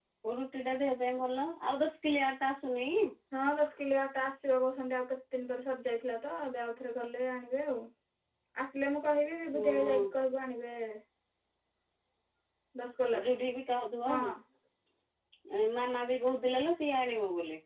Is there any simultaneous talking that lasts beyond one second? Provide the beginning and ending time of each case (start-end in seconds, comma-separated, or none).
none